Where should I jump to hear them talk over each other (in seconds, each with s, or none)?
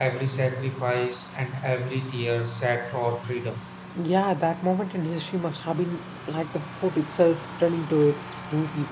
none